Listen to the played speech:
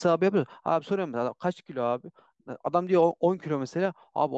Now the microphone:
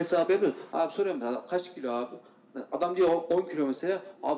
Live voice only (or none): none